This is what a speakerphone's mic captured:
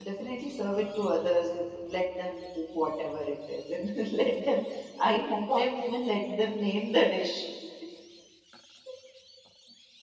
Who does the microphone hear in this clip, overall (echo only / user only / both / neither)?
user only